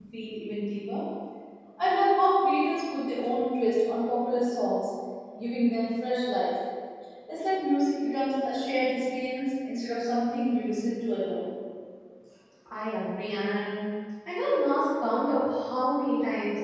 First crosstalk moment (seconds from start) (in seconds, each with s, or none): none